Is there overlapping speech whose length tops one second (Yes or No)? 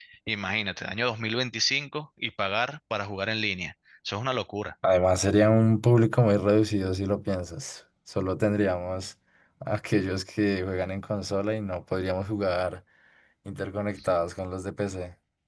No